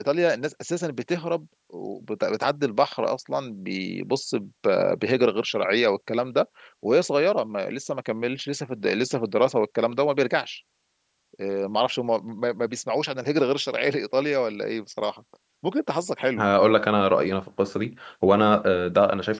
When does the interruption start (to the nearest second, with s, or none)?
none